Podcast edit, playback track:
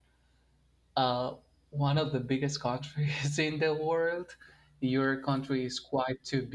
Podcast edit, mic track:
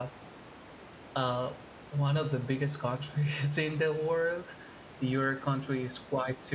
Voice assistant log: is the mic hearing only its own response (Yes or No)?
Yes